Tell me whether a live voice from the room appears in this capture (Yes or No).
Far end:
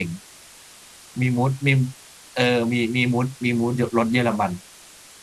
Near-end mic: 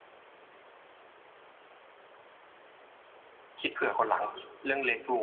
Yes